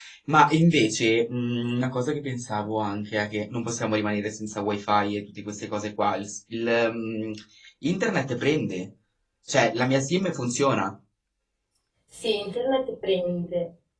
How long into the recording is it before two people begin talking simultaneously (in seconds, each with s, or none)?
none